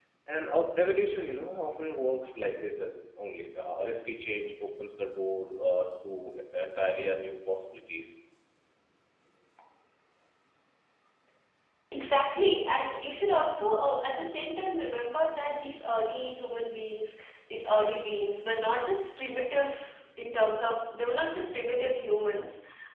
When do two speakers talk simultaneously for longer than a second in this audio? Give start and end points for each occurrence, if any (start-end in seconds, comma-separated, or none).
none